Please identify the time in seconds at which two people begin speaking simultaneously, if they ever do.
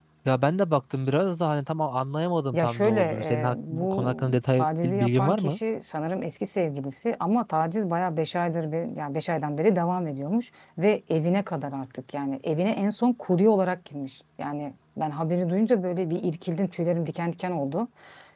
2.5 s

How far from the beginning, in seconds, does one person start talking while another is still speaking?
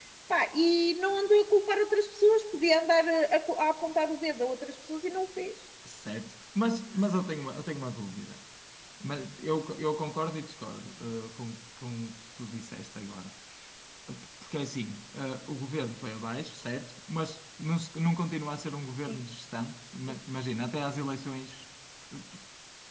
none

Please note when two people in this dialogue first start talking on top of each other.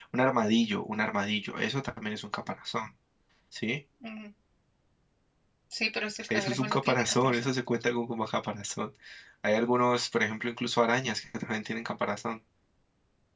6.3 s

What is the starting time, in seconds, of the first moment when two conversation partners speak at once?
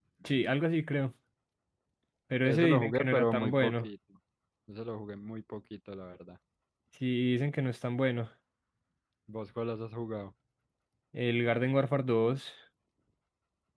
2.4 s

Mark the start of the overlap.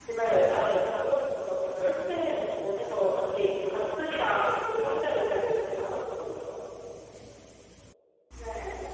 4.8 s

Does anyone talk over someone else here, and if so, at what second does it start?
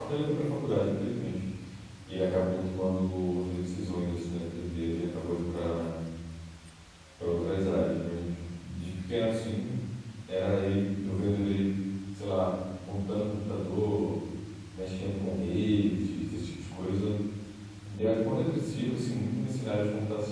none

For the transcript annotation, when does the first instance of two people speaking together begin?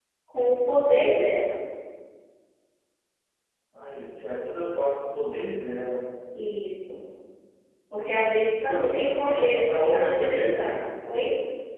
8.6 s

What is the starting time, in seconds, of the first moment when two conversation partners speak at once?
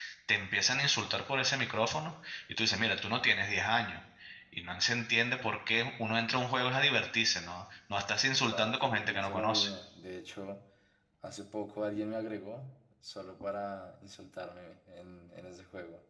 8.5 s

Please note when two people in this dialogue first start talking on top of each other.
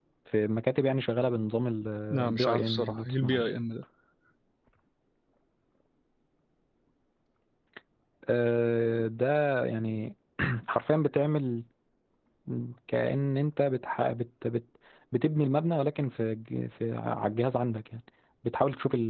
2.1 s

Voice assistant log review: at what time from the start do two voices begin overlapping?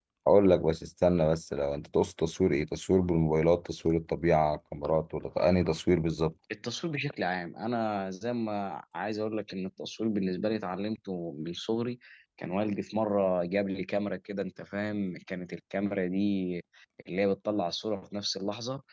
none

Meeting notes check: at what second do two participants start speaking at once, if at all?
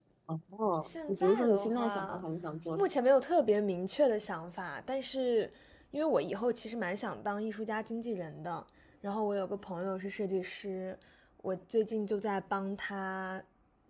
0.8 s

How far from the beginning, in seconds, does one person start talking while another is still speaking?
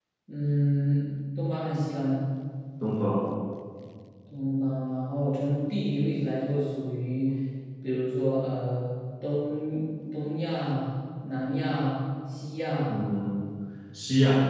none

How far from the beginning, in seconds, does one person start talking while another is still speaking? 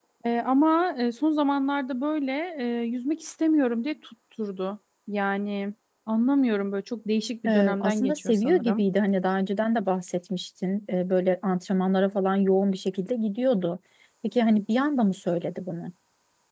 7.5 s

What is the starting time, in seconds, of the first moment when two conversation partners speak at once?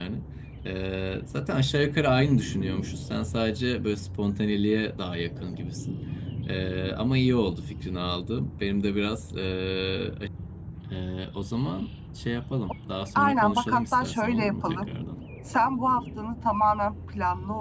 13.2 s

